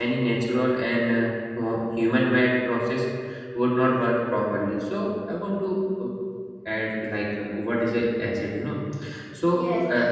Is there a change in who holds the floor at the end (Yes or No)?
Yes